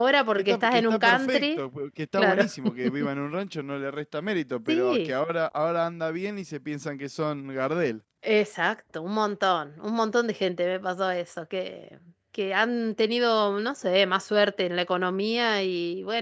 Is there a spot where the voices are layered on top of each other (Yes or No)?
Yes